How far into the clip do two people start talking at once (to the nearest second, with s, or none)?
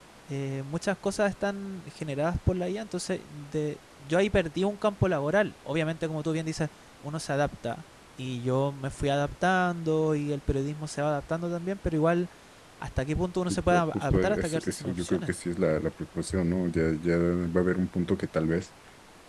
13 s